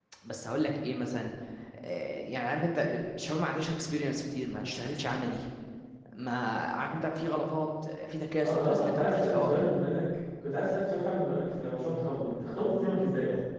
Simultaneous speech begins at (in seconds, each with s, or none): 8.4 s